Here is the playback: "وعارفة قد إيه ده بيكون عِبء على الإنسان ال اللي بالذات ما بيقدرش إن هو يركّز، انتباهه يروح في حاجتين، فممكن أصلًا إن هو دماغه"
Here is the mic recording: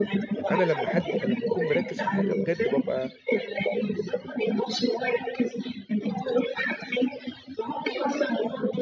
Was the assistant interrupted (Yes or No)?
Yes